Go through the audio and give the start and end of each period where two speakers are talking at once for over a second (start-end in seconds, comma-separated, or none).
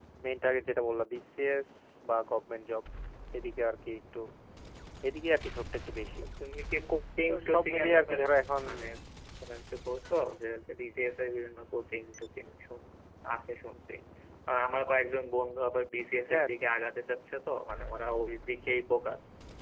7.3-8.6